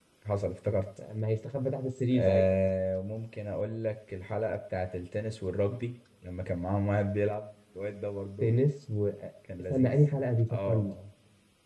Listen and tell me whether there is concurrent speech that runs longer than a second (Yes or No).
No